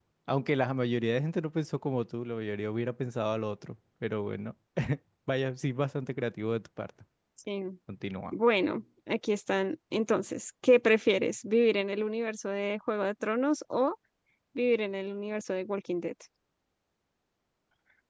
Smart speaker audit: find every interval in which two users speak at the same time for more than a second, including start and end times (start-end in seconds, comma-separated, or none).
none